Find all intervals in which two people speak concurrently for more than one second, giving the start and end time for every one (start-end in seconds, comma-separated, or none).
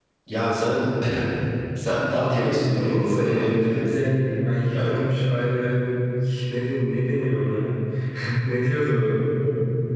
2.1-4.0